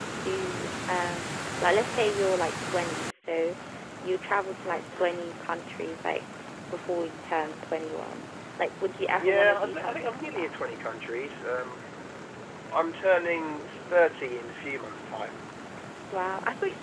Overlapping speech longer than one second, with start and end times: 9.2-10.5

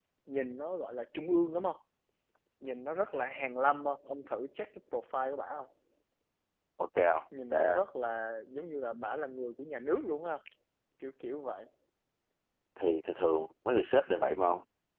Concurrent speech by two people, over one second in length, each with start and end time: none

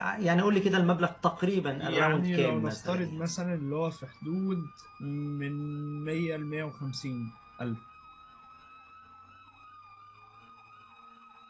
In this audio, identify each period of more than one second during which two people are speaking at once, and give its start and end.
1.8-3.1

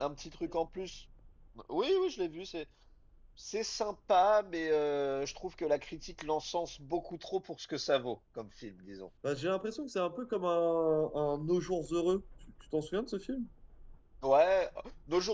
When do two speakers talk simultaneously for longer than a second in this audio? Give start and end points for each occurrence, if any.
none

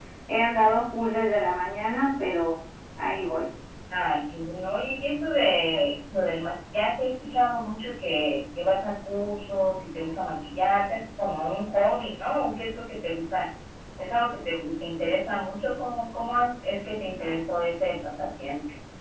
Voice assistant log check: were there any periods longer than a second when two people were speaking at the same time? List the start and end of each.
none

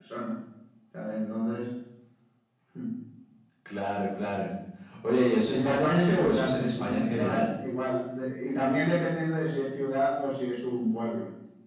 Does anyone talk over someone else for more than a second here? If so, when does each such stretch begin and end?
5.5-7.5

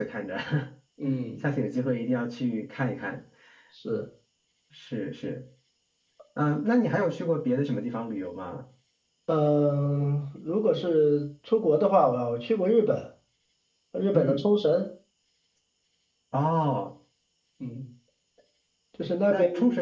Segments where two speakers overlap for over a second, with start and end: none

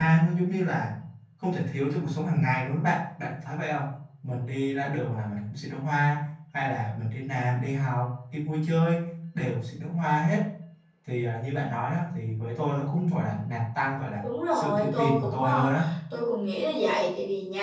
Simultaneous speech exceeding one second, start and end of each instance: 14.2-15.7

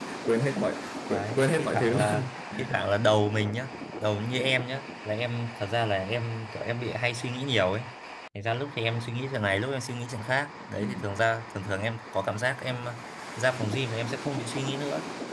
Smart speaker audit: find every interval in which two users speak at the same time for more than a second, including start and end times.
1.1-2.4

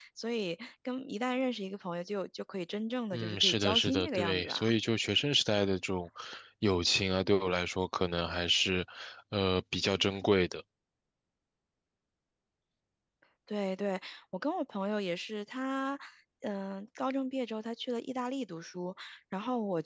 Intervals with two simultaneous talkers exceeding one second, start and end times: 3.1-4.7

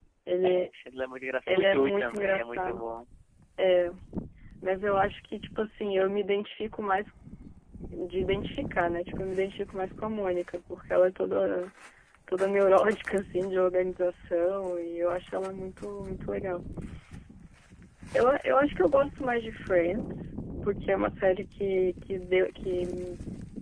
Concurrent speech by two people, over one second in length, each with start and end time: 1.5-2.8

